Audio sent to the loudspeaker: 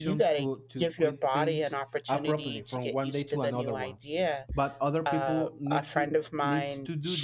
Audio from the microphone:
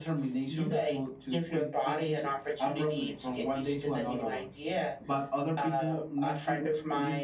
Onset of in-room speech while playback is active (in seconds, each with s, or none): none